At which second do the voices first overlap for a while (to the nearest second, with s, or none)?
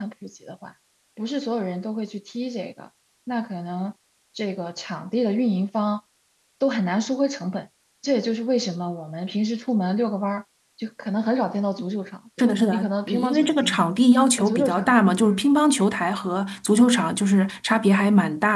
12 s